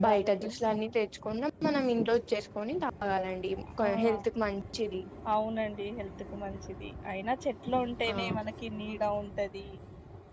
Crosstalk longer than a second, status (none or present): none